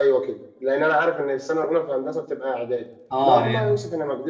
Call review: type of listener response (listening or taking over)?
listening